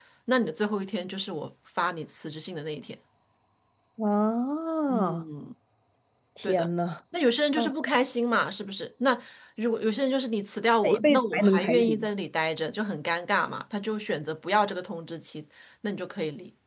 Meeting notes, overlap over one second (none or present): present